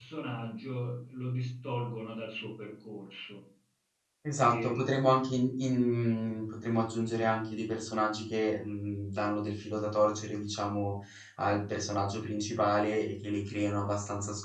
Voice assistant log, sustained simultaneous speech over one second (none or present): none